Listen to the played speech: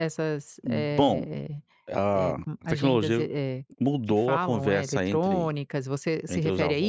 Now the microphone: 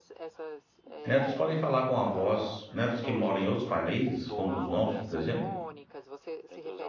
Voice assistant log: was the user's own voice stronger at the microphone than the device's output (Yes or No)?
Yes